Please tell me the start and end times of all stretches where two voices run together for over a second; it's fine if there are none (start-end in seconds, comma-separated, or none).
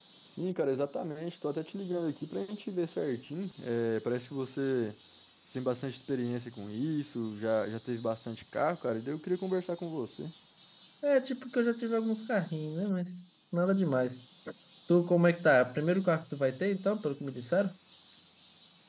none